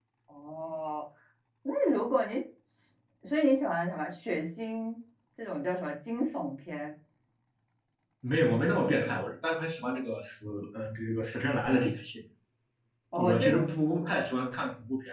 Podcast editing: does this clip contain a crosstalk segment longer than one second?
No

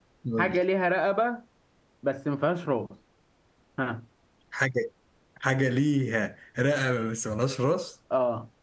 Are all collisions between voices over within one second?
Yes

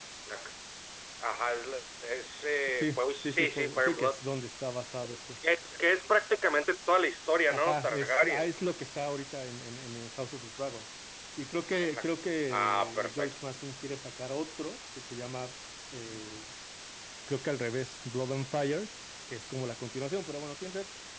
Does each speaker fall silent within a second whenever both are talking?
No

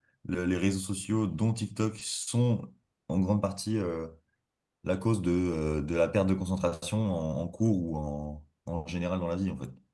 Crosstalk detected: No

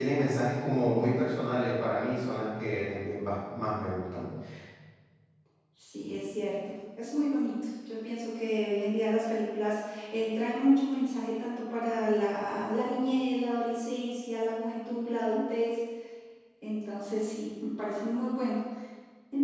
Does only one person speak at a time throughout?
Yes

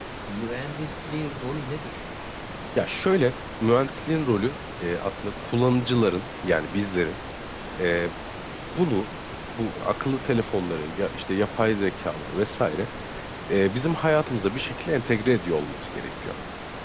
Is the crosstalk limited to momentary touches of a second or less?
Yes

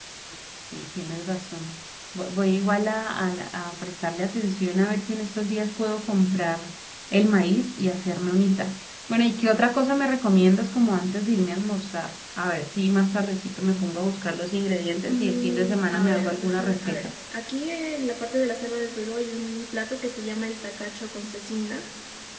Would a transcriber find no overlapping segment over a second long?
No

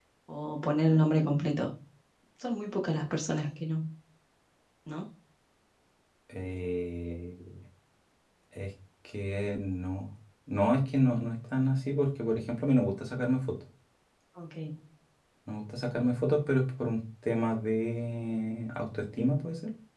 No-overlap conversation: Yes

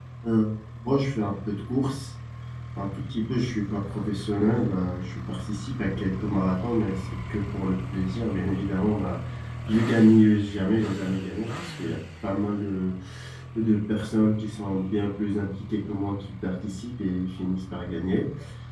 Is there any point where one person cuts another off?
No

